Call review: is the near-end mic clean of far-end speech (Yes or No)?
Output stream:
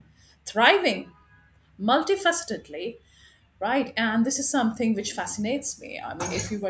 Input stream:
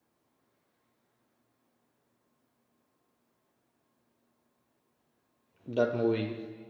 Yes